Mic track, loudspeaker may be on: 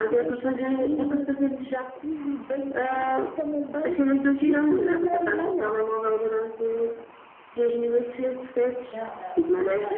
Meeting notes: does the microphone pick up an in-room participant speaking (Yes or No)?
Yes